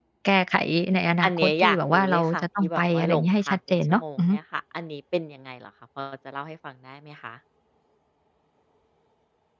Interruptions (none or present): present